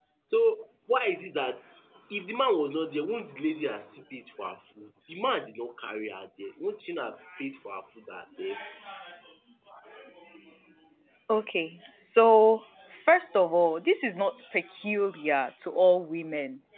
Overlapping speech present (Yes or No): No